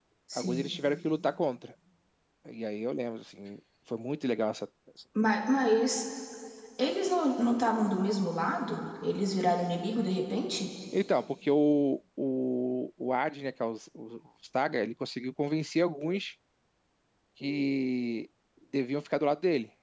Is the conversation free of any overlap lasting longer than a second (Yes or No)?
Yes